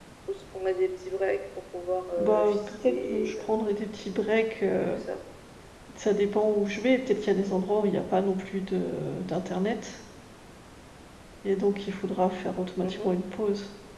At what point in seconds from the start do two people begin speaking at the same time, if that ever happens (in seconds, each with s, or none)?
2.2 s